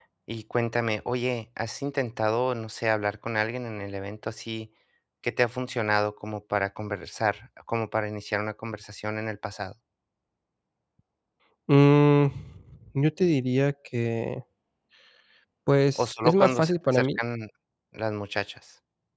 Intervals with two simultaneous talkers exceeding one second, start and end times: 15.9-17.2

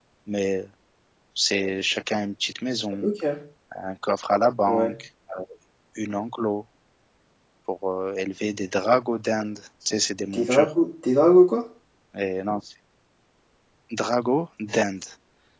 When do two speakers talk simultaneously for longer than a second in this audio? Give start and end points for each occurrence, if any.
none

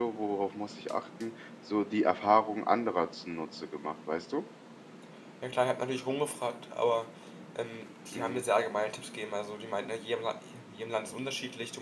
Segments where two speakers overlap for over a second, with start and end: none

